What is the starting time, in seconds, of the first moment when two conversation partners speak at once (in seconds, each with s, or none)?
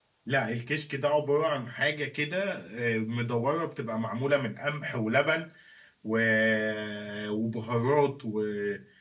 none